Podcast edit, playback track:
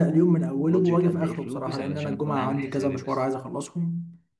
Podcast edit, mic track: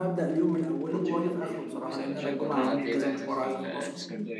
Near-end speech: present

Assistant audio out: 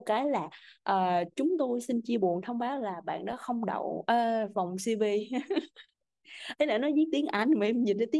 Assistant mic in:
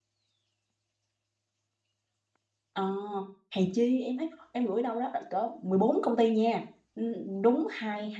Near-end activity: present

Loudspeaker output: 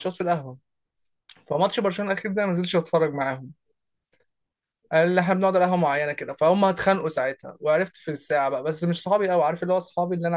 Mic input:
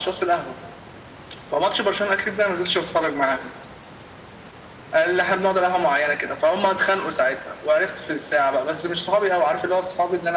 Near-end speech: none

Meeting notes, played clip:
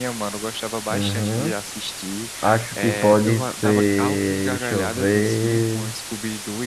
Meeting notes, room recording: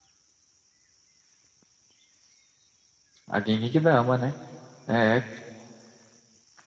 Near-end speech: present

